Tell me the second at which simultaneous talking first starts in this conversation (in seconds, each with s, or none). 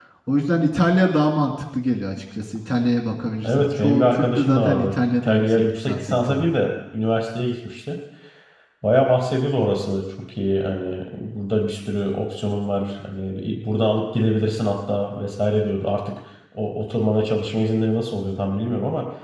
3.4 s